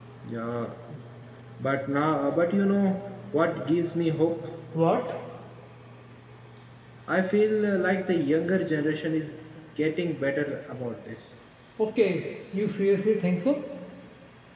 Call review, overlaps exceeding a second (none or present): none